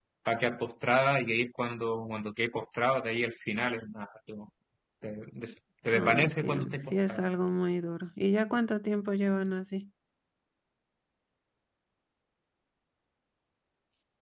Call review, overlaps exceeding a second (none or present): present